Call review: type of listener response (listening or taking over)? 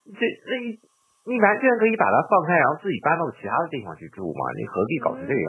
taking over